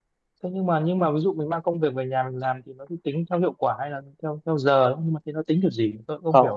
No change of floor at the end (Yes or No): No